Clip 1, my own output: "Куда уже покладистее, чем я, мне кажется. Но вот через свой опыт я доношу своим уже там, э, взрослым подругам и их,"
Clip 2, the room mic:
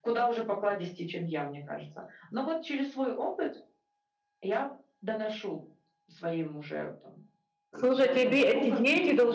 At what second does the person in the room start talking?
7.7 s

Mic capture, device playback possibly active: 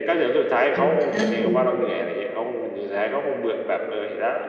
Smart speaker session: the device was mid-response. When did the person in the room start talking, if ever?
0.7 s

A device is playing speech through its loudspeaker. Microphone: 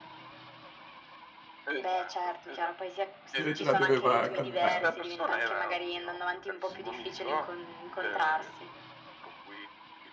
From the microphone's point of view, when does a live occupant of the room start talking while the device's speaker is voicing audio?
3.4 s

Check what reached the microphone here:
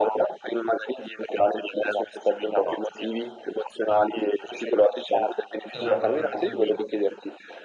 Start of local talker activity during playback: 5.7 s

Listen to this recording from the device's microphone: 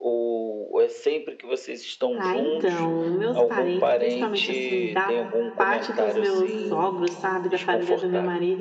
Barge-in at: 2.1 s

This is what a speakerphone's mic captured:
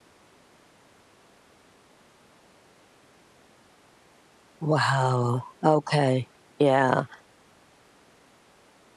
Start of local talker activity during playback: 4.6 s

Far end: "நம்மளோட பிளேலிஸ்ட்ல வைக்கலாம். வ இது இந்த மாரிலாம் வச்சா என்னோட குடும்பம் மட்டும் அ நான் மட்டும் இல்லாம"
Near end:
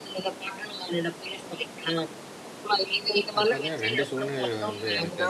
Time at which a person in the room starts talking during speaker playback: 3.3 s

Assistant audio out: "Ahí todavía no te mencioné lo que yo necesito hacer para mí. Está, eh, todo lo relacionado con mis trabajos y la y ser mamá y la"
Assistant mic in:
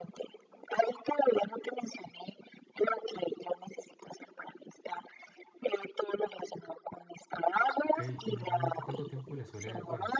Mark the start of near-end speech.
7.8 s

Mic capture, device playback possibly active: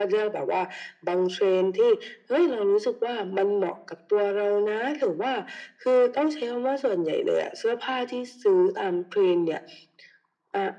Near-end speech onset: none

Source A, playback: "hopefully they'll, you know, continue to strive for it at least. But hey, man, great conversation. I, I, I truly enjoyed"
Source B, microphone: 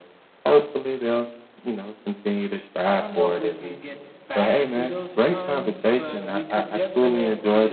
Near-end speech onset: 2.8 s

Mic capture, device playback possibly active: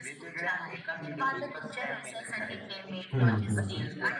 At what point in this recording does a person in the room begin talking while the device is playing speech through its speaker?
3.1 s

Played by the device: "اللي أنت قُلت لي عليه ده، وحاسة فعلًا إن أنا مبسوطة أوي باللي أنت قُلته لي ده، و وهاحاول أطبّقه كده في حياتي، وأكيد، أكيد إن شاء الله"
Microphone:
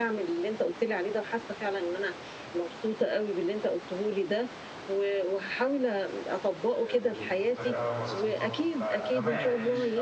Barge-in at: 6.7 s

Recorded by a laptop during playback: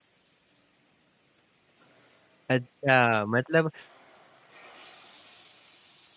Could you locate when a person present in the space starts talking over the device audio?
2.5 s

